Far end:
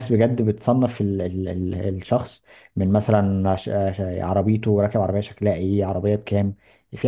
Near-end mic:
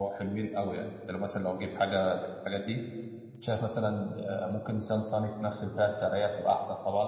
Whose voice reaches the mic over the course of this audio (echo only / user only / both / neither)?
user only